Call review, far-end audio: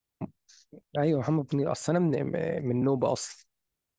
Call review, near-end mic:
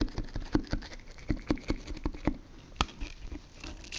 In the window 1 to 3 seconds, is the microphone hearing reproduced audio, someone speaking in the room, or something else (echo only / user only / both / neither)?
neither